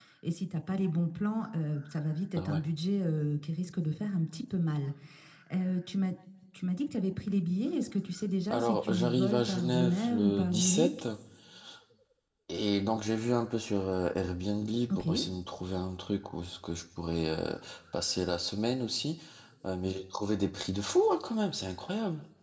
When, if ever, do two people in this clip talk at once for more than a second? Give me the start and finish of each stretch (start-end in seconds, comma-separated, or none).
8.5-10.9